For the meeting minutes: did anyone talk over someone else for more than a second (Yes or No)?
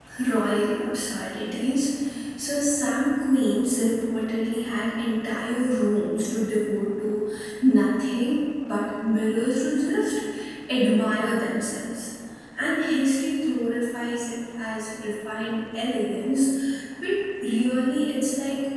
No